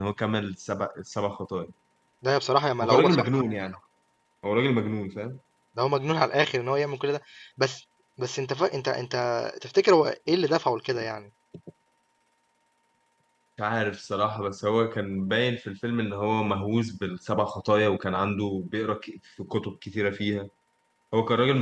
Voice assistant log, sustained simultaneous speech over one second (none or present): none